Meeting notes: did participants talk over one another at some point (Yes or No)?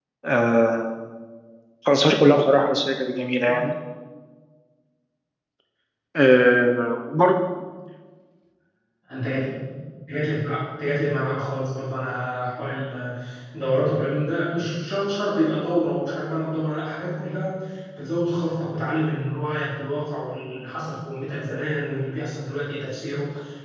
No